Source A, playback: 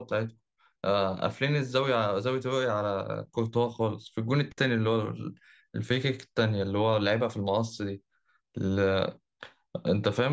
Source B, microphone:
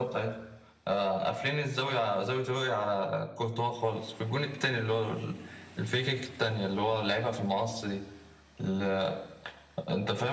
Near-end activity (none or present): none